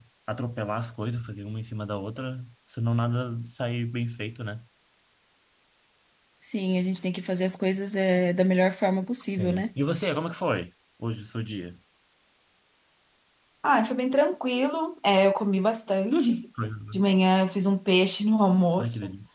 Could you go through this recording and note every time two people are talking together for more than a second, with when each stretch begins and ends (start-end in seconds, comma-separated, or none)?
none